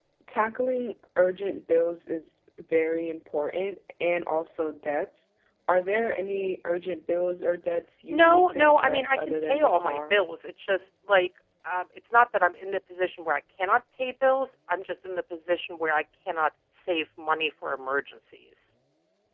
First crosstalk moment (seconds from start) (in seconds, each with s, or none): 8.1 s